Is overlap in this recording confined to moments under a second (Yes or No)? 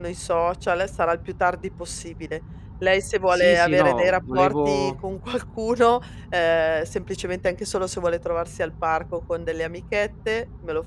No